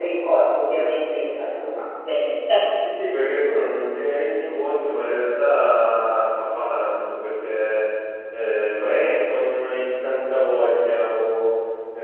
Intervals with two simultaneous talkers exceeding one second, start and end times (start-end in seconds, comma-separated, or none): none